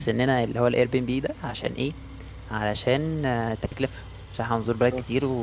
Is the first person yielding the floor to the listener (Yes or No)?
No